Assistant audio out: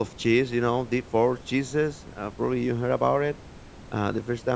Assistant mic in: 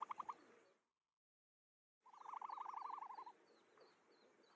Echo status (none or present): none